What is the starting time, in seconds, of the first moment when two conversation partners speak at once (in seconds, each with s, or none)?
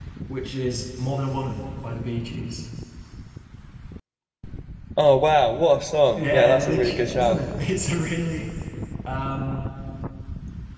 6.2 s